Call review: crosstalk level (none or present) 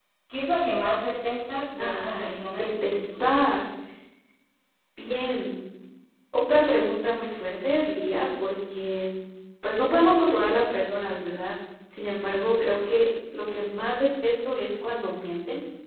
present